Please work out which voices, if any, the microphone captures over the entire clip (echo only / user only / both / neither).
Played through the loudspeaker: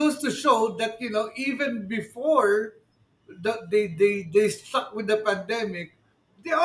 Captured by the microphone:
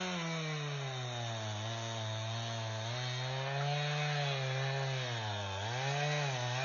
neither